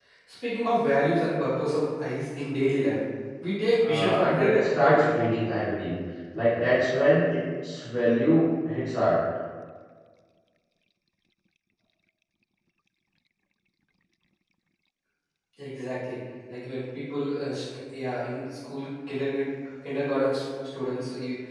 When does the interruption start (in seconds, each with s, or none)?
3.8 s